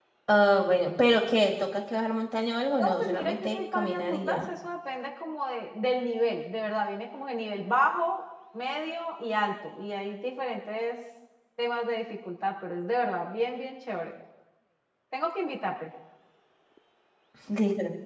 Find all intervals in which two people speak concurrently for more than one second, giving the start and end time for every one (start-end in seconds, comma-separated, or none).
2.8-4.5